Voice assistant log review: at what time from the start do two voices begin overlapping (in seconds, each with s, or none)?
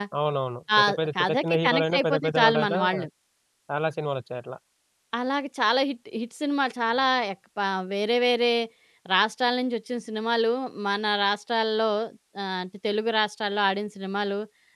0.8 s